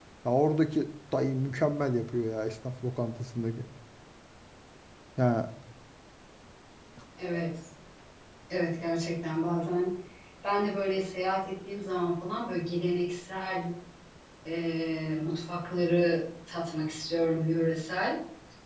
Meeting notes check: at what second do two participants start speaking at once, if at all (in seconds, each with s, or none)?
none